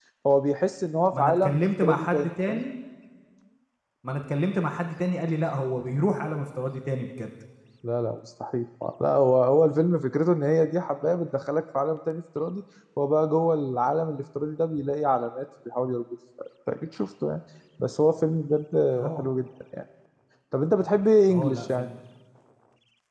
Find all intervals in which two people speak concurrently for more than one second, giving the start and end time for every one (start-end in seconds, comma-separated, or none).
1.1-2.6